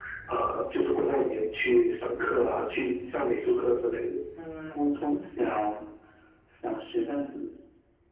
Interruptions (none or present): none